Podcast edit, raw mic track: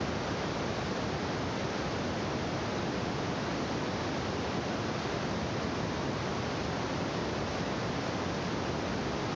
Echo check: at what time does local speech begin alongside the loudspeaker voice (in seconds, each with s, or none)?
none